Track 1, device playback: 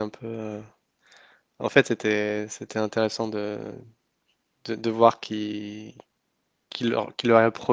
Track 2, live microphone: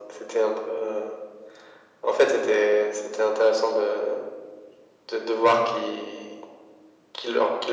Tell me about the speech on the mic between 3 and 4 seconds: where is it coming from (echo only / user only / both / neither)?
echo only